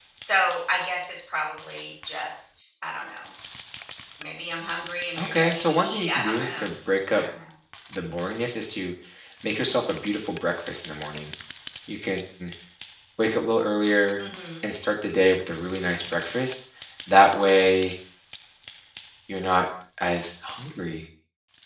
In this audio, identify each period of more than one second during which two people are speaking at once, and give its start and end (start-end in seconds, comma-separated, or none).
5.2-6.6